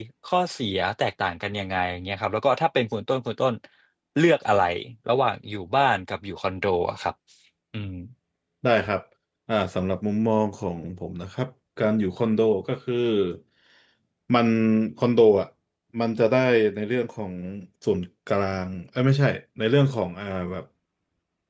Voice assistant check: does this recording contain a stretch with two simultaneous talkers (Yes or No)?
No